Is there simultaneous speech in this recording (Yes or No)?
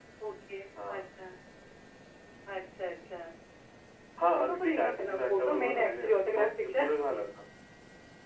Yes